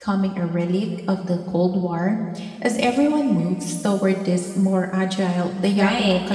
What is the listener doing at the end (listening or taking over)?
taking over